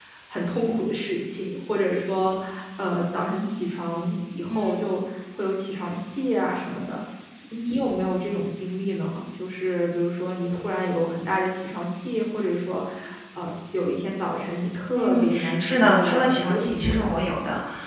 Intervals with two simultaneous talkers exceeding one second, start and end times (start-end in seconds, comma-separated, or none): 14.9-17.1